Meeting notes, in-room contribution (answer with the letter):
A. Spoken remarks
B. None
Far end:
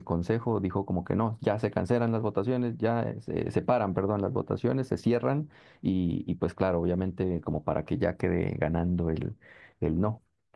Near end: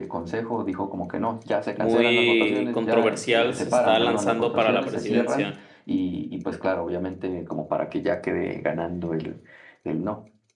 A